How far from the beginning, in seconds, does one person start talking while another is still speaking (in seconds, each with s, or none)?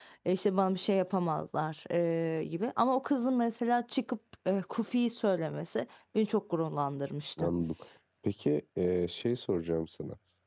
none